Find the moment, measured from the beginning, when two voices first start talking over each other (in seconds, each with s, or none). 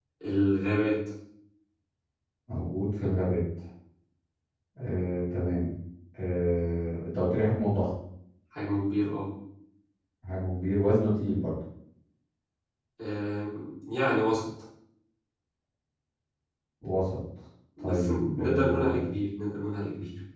17.8 s